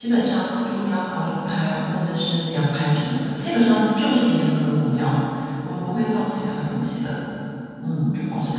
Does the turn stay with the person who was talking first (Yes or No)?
No